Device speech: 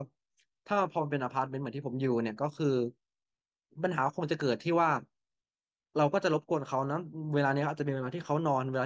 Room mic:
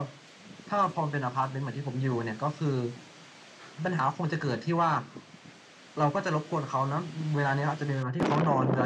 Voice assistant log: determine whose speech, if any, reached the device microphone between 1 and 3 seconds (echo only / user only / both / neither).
echo only